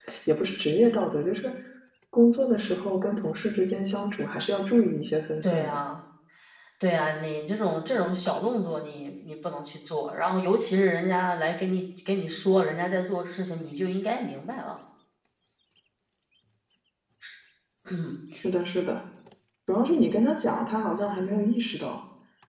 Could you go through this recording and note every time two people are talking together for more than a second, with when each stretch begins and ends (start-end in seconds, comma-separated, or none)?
none